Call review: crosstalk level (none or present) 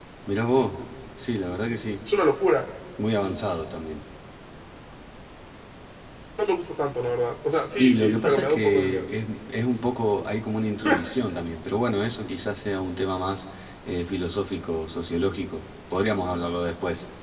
present